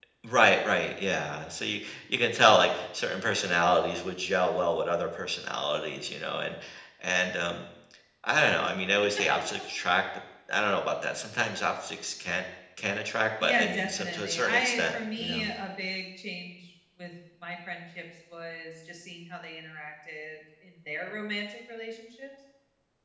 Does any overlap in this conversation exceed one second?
Yes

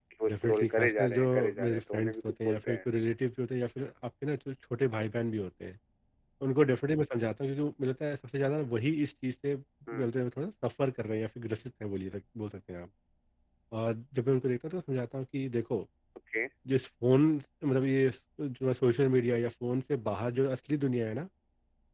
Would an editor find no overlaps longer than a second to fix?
No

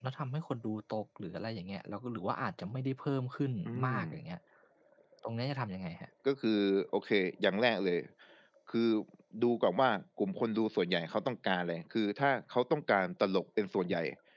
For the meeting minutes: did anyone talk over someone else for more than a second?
No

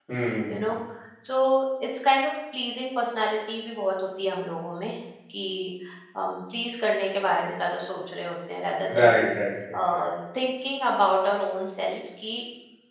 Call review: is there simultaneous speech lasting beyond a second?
No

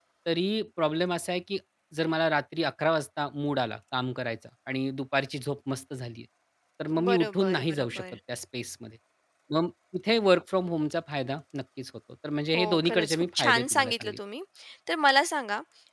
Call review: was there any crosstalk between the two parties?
Yes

